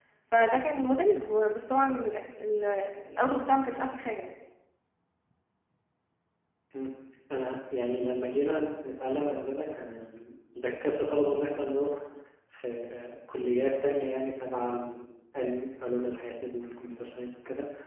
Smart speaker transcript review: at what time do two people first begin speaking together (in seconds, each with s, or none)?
none